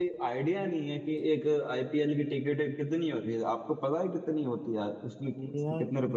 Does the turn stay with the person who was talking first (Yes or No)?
No